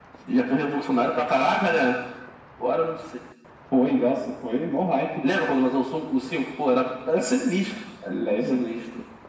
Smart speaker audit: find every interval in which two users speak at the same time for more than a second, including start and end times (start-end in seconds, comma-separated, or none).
none